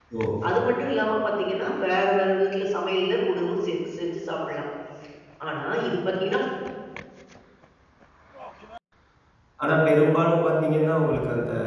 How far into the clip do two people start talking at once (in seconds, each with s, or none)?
none